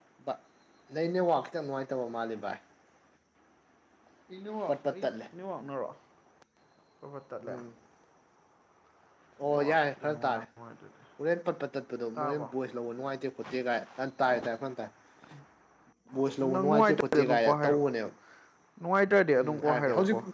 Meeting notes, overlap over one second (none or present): present